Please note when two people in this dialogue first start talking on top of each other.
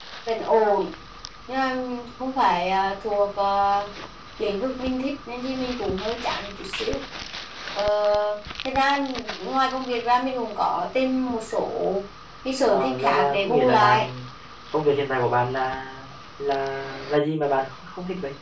12.7 s

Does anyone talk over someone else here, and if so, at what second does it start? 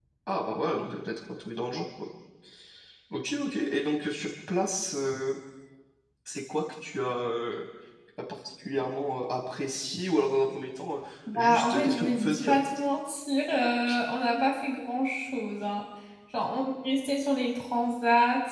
11.3 s

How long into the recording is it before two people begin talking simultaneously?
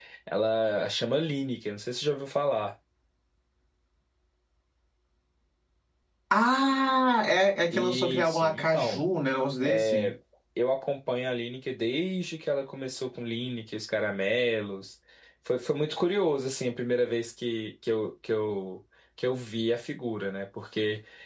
7.7 s

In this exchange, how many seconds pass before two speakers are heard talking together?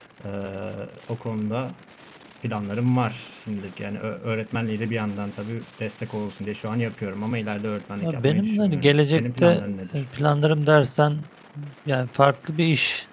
8.0 s

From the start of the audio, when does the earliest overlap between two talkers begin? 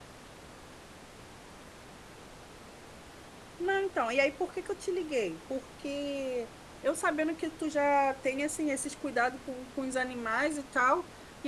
none

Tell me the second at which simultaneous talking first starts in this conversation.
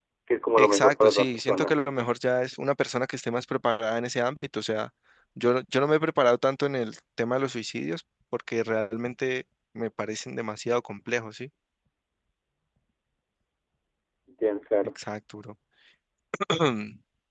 0.6 s

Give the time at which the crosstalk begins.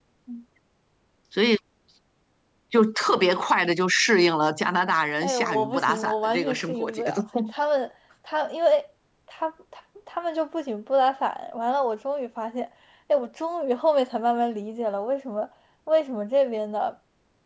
5.2 s

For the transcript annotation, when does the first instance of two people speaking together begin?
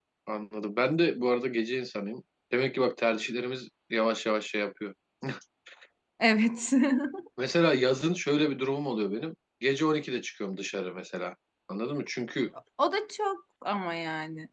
none

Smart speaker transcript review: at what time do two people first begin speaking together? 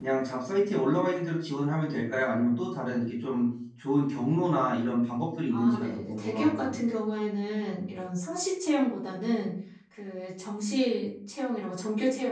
5.5 s

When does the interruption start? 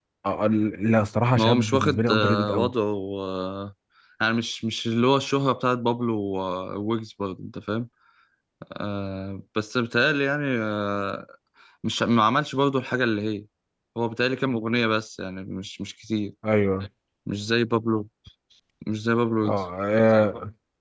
1.4 s

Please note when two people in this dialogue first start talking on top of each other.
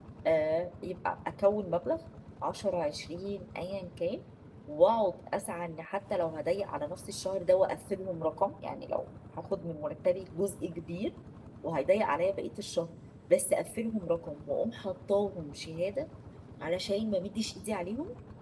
none

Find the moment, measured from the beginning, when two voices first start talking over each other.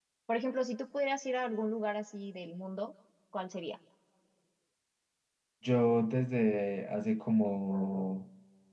none

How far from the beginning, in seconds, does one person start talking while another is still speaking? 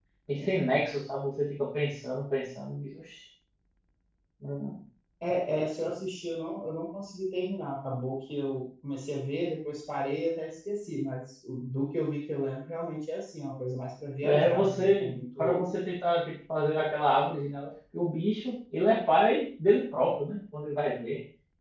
14.2 s

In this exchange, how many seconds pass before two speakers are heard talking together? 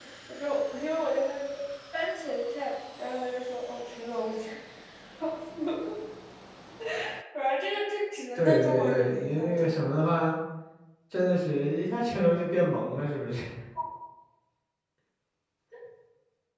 8.3 s

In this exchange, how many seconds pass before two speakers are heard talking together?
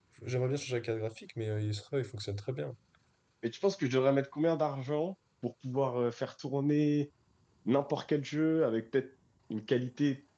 none

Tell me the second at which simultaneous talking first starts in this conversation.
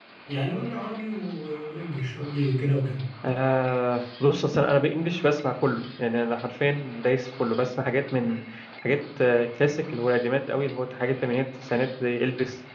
none

